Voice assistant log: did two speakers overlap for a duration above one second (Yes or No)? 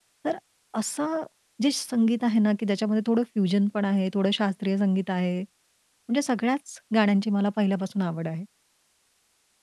No